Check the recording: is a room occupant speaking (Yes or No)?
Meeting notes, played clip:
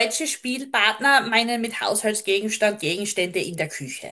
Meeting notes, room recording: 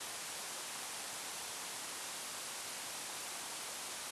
No